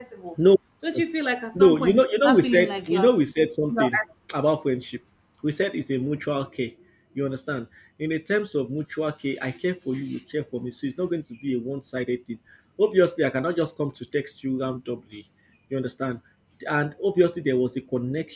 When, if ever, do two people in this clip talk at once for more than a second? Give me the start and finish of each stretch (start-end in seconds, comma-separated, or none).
1.5-3.1